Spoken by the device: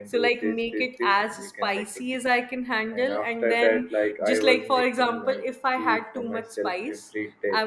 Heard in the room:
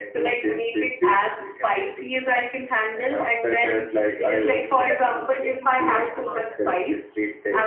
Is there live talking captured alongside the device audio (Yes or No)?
Yes